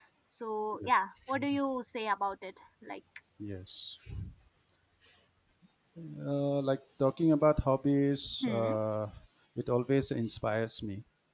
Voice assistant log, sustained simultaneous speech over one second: none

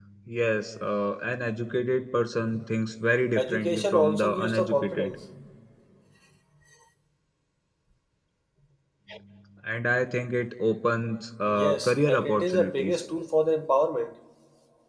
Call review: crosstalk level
present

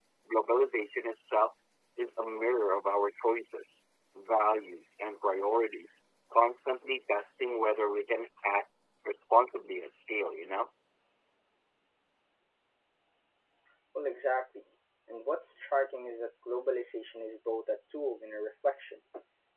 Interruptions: none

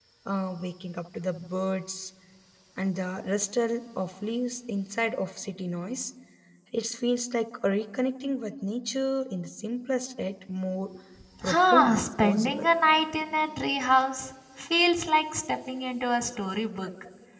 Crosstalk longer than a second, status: present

